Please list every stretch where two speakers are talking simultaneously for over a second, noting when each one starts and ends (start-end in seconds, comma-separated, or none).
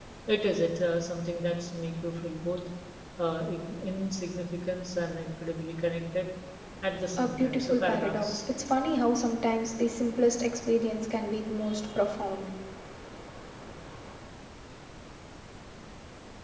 7.2-8.4